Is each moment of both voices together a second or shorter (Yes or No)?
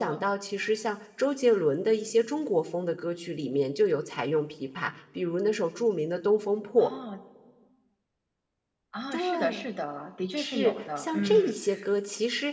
No